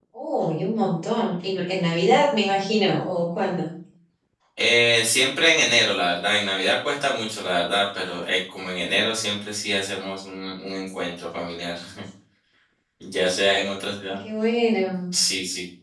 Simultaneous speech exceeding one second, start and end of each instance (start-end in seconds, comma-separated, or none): none